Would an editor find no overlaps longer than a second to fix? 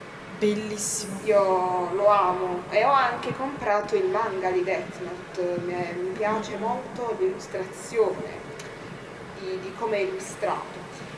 Yes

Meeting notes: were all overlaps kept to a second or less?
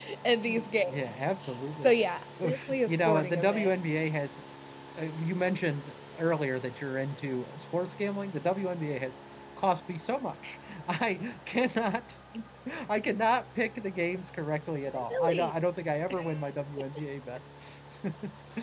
No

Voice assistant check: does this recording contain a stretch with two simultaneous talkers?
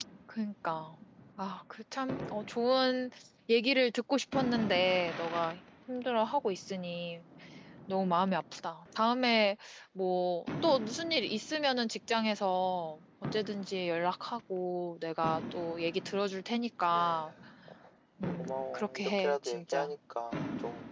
Yes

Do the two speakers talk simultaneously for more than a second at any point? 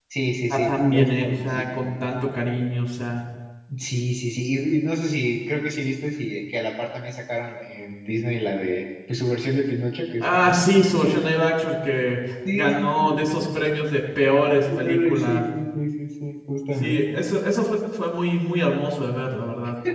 Yes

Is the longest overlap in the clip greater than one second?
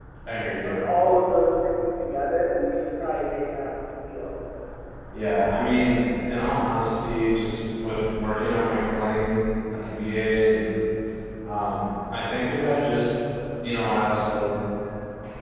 No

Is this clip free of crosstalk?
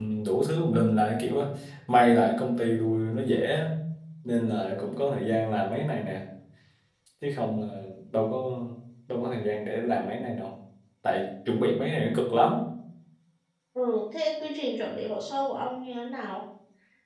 Yes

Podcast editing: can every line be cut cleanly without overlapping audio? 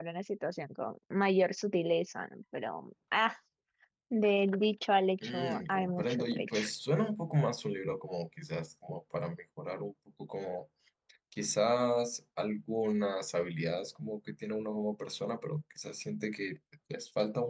No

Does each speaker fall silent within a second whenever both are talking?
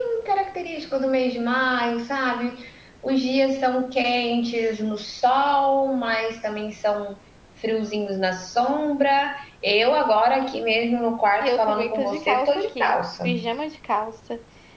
No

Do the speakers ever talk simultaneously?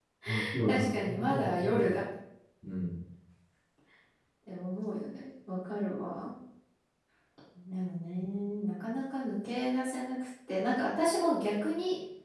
Yes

